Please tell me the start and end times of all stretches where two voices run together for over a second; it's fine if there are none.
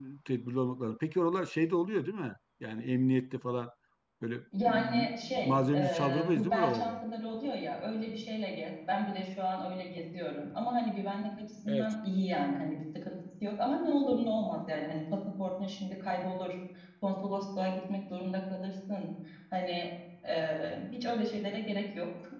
4.7-7.0

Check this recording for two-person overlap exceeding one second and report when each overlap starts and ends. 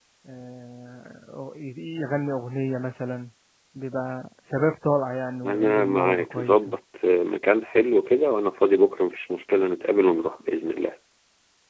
5.4-6.8

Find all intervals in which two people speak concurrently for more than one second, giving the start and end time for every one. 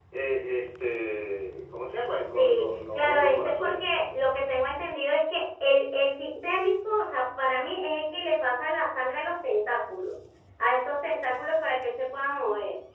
2.3-3.8

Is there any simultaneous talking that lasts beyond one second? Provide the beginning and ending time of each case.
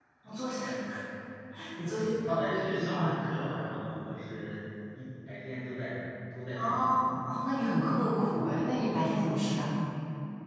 1.9-3.1

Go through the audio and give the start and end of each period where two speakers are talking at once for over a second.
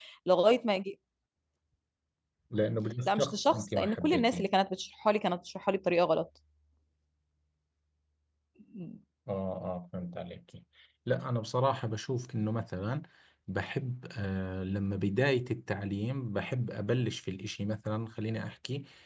3.0-4.5

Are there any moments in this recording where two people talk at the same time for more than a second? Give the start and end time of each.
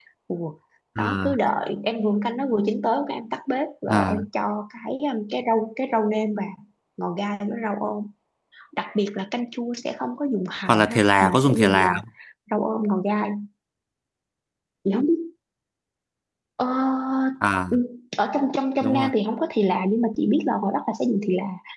10.7-11.9

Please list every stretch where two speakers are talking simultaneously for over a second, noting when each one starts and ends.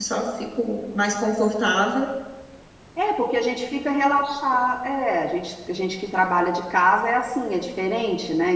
none

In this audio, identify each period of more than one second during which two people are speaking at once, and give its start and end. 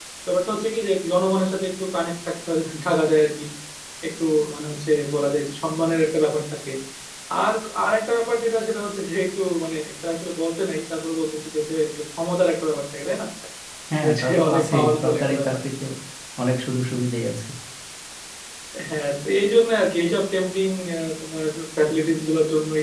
14.0-15.5

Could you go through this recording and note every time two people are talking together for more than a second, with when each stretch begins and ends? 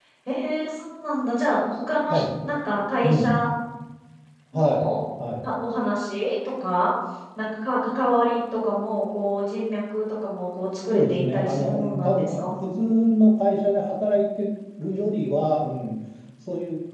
10.9-12.5

